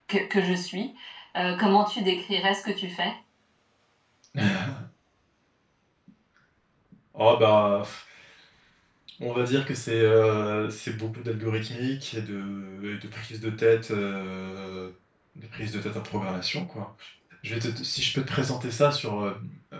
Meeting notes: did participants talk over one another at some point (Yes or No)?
No